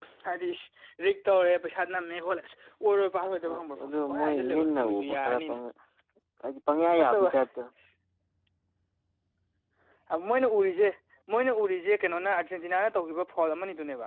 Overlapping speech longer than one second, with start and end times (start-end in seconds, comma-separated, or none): 3.4-5.6